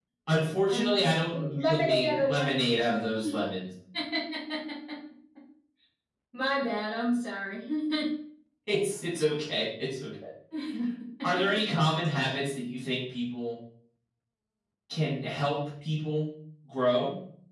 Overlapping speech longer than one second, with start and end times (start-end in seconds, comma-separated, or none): 0.7-2.7